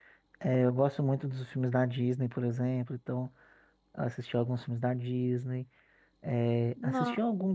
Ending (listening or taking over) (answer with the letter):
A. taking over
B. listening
B